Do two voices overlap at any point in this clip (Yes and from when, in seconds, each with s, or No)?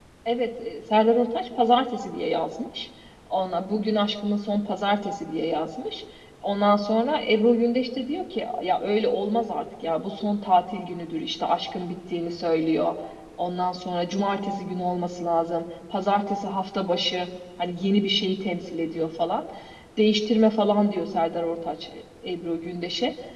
No